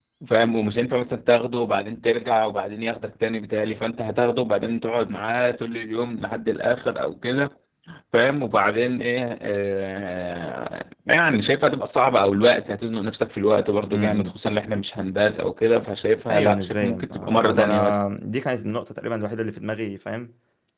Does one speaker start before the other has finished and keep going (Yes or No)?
Yes